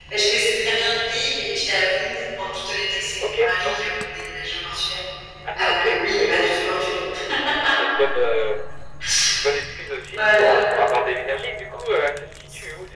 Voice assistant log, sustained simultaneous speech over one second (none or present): present